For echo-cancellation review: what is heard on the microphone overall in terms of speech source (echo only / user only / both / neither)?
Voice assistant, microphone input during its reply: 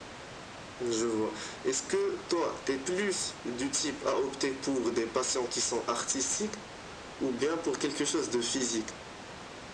echo only